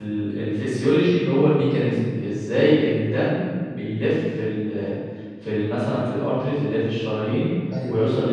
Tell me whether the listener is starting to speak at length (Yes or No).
No